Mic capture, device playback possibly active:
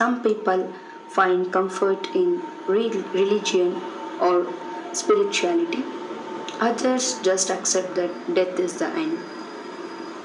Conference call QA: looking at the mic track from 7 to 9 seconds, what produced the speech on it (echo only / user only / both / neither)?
echo only